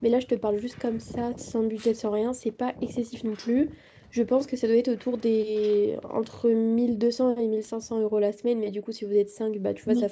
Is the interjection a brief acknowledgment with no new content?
Yes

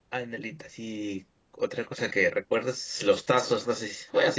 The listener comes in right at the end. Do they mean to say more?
No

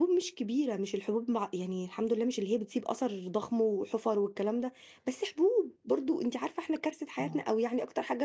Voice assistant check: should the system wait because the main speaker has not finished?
Yes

